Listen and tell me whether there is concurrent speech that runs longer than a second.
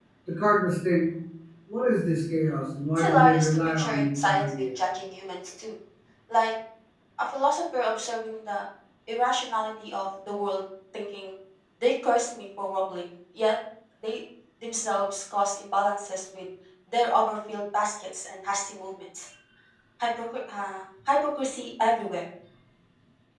Yes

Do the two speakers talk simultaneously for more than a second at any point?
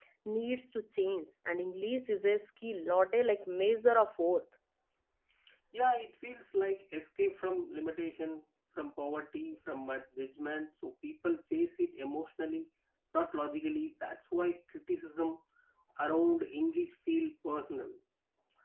No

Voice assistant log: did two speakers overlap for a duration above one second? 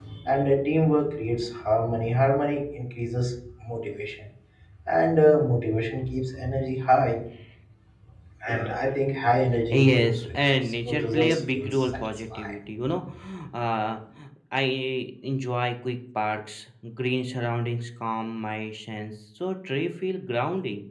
Yes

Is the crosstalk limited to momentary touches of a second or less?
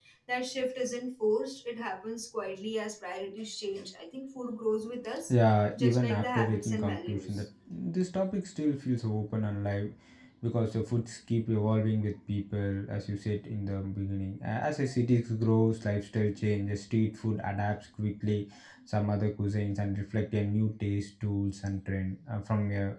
No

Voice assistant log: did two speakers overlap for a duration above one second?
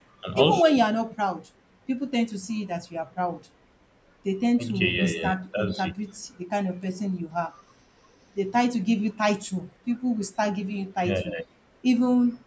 Yes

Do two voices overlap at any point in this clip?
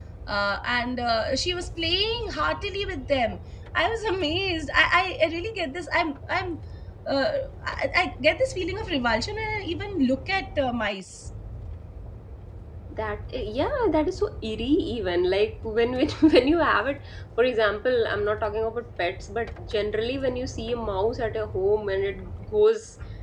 No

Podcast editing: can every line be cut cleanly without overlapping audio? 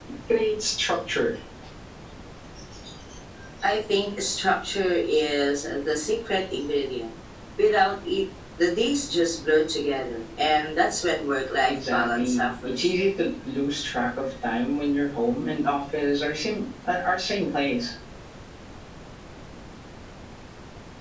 No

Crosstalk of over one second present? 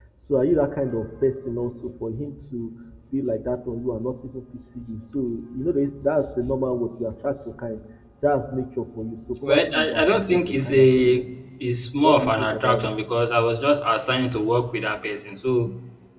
Yes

